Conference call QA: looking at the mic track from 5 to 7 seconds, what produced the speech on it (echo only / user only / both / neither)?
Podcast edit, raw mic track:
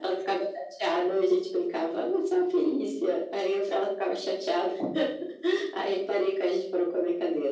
echo only